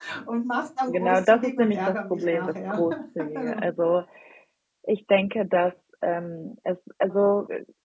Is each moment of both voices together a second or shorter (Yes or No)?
No